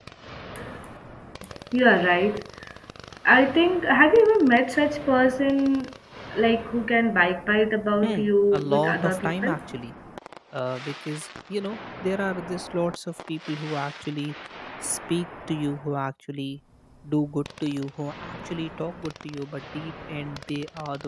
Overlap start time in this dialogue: 8.0 s

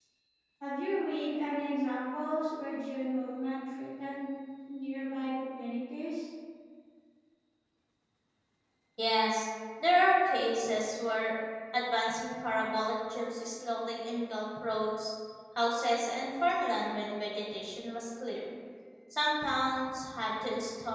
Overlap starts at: none

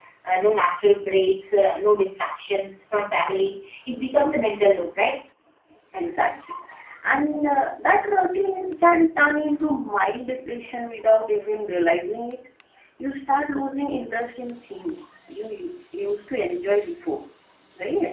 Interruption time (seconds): none

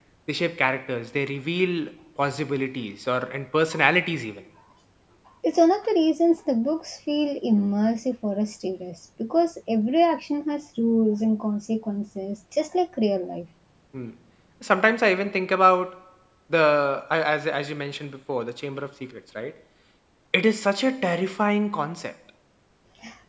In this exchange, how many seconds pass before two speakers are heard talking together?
none

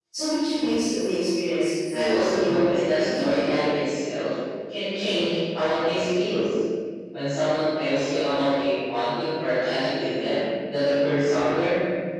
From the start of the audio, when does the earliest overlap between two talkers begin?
1.9 s

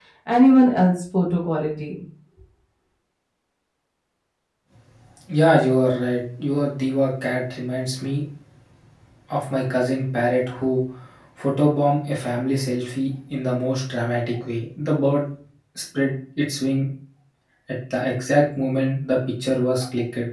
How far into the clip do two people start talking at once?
none

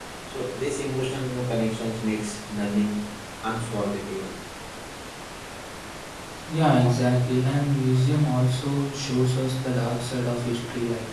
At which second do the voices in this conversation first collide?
none

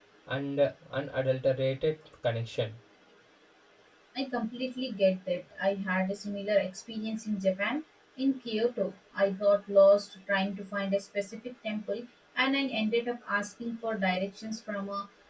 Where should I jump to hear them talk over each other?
none

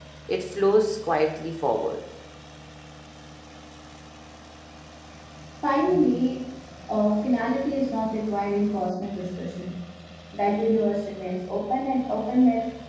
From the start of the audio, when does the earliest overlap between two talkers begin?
none

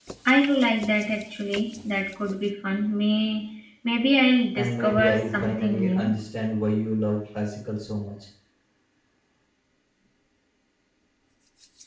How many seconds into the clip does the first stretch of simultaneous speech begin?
4.5 s

